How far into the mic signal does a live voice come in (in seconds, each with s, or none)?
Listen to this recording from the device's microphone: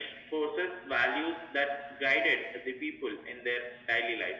none